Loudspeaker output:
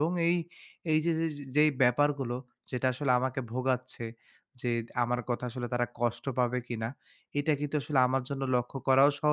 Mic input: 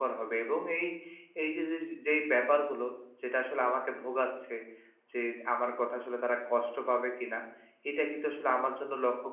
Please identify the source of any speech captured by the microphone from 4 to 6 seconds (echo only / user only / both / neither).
echo only